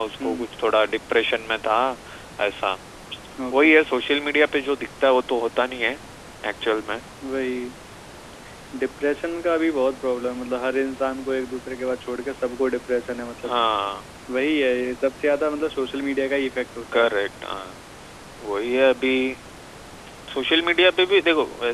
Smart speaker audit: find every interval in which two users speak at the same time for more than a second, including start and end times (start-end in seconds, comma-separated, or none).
none